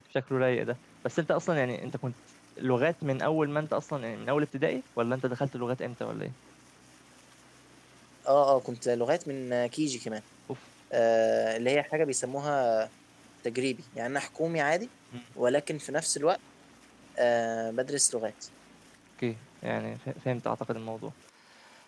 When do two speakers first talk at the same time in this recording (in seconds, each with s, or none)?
none